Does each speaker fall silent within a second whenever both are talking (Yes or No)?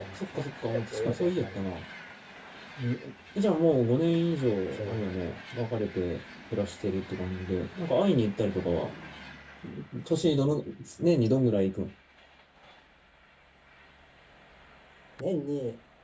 No